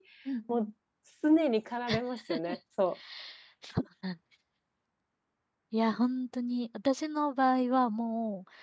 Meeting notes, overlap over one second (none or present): none